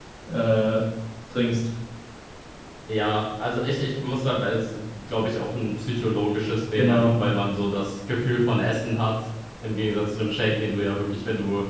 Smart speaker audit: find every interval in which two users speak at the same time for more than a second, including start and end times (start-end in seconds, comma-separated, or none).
none